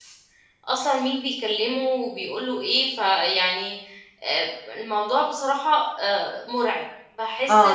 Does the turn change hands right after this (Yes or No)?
Yes